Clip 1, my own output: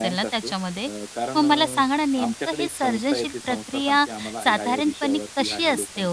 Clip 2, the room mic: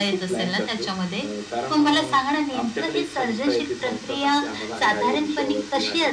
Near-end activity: none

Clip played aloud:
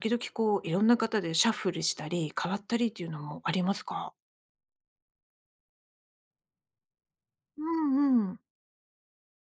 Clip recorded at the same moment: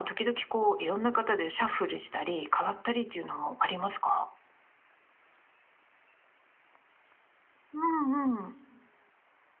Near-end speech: none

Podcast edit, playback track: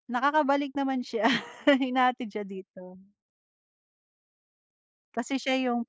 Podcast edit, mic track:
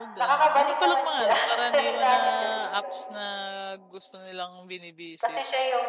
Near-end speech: present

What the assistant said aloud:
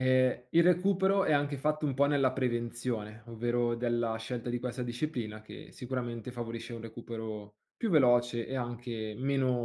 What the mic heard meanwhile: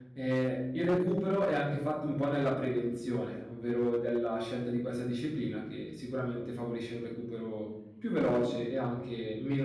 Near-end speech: none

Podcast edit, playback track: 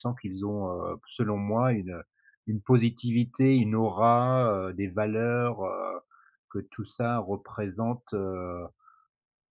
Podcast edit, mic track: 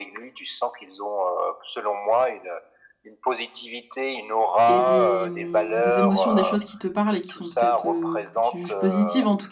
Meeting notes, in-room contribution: present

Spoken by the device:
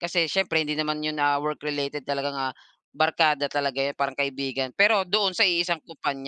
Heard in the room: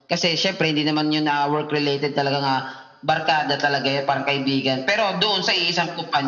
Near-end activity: none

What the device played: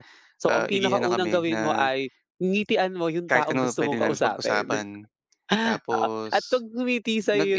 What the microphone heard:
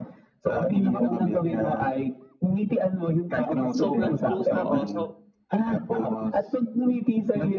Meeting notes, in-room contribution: present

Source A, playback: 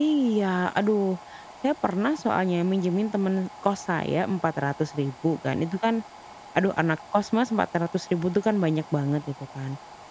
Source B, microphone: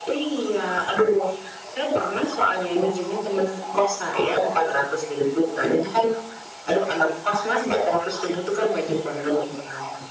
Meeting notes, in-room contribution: none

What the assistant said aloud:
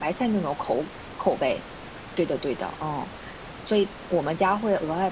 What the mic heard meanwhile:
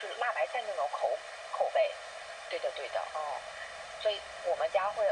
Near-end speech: none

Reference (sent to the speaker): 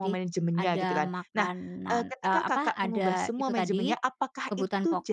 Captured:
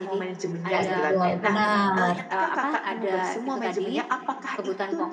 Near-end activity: present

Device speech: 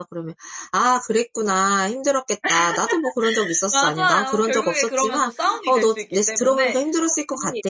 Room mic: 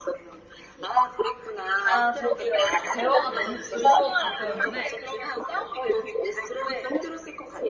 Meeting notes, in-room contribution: present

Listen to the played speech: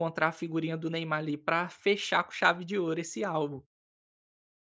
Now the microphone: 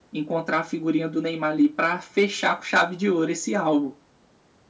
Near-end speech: none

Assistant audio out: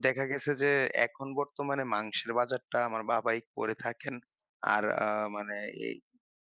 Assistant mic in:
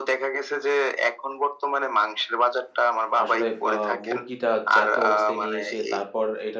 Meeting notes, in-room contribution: present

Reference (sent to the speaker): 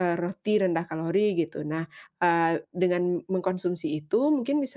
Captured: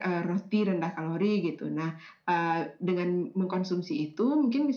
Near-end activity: none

